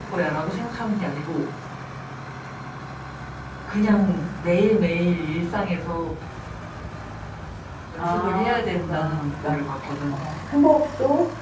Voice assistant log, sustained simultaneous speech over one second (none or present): present